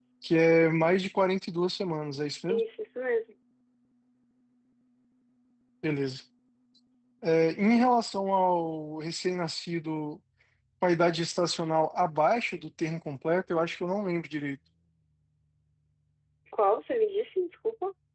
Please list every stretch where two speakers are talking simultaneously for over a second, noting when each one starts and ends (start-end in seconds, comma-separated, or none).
none